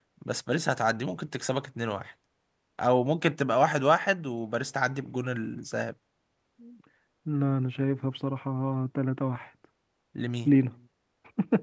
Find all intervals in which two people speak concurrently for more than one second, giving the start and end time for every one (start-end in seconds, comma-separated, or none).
none